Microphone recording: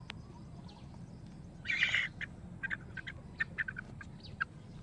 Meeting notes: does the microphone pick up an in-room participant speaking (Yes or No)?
No